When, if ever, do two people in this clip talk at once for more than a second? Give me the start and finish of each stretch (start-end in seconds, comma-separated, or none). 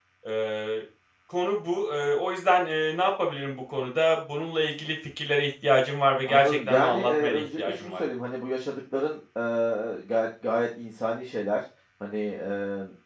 6.2-8.0